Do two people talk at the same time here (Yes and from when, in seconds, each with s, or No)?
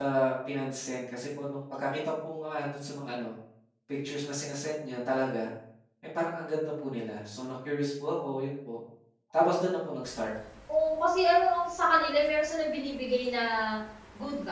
No